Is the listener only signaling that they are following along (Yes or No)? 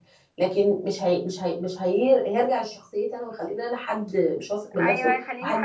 No